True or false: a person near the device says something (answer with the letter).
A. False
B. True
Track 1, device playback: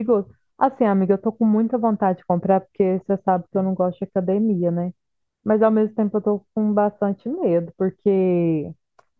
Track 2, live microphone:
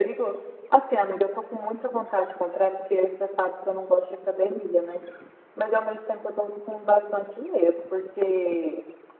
A